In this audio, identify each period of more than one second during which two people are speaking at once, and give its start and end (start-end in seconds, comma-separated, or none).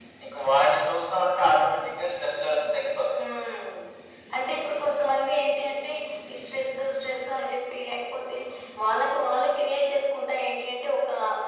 none